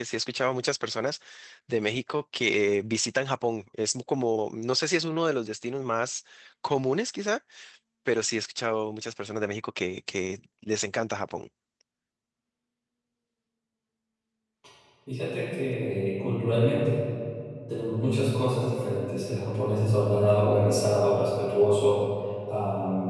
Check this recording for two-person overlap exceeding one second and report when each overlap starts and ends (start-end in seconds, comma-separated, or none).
none